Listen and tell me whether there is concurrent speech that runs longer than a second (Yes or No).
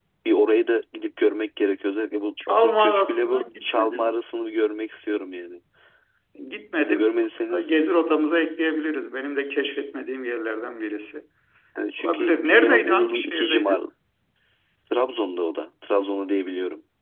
Yes